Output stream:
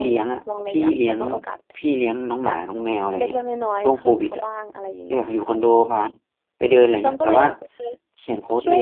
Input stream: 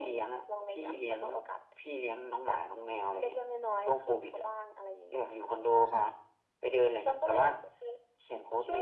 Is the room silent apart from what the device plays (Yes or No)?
No